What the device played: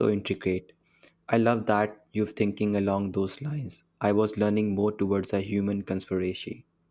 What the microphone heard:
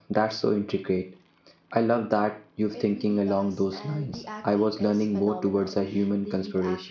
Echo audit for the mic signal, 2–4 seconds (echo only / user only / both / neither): both